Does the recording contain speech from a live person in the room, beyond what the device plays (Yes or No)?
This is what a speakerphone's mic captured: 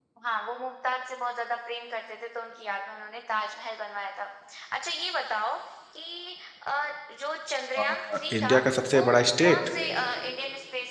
Yes